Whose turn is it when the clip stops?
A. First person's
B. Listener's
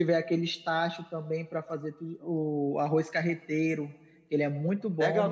B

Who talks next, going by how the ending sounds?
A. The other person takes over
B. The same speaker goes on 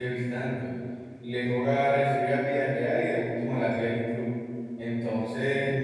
B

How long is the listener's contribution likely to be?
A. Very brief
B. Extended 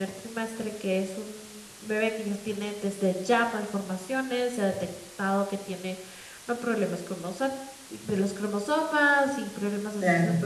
A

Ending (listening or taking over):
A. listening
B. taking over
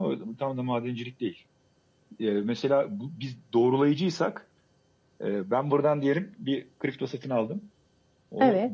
A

